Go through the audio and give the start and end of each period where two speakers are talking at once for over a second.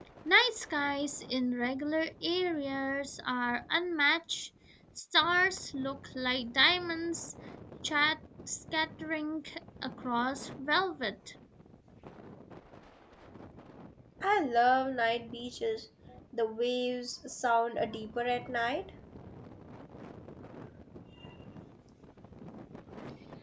none

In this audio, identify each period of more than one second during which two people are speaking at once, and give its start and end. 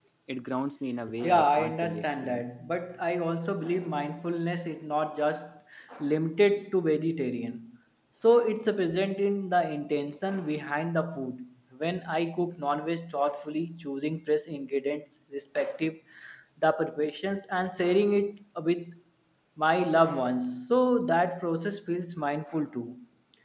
1.2-2.4

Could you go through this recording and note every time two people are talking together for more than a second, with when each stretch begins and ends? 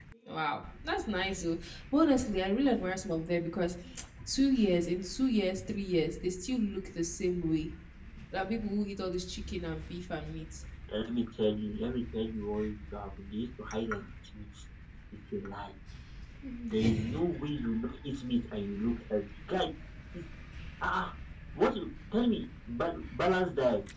none

